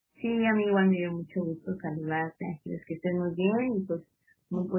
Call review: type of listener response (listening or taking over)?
listening